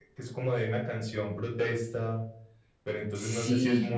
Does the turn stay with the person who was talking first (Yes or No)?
Yes